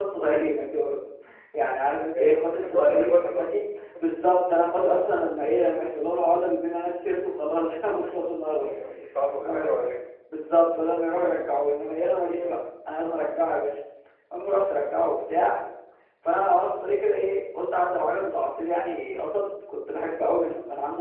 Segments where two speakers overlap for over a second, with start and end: 2.2-3.5

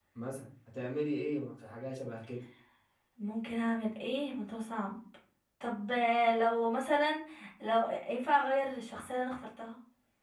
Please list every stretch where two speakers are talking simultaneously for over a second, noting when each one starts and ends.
none

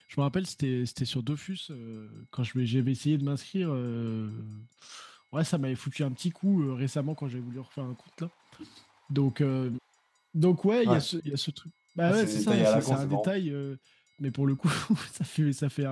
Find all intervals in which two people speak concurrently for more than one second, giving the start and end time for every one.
12.1-13.3

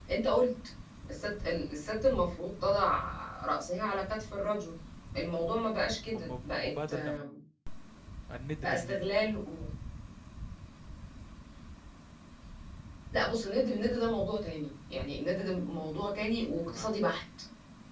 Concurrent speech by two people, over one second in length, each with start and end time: 6.1-7.4

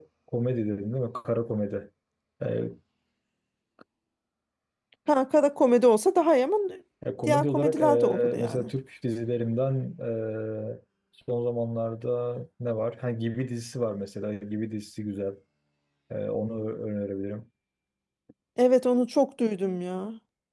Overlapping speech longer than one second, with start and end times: 7.2-8.7

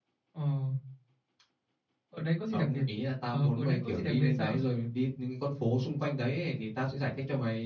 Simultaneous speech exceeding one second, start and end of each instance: 3.3-4.6

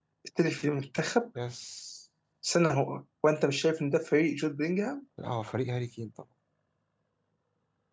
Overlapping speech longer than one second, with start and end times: none

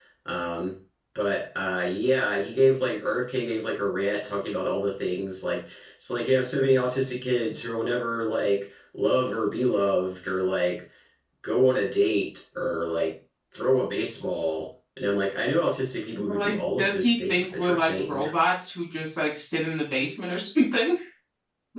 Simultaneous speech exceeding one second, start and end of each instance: 16.3-18.2

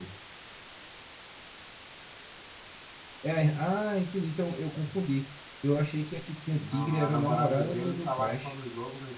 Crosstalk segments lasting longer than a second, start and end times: 6.6-8.5

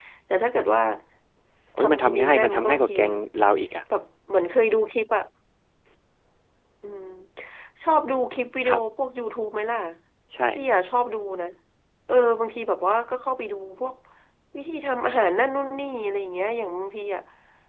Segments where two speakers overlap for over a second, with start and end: 1.8-3.1

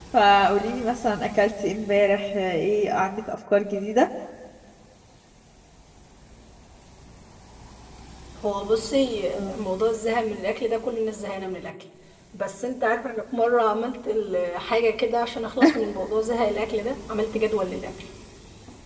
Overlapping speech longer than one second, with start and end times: none

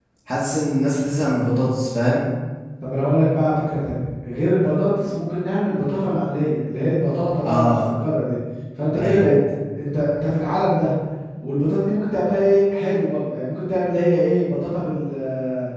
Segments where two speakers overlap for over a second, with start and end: none

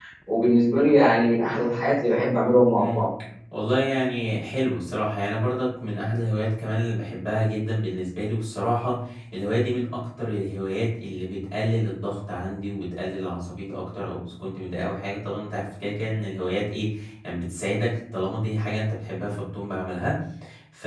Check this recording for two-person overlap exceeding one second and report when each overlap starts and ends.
none

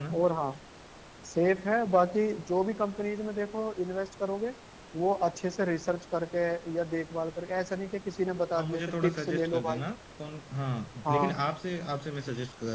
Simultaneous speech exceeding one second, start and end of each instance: 8.5-9.8

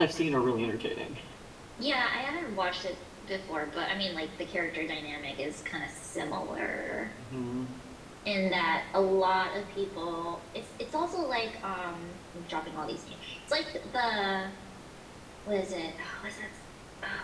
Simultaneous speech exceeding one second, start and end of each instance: none

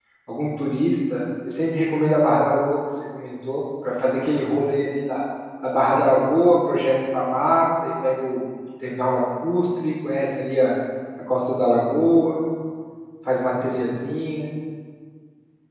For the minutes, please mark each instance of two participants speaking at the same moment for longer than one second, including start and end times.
none

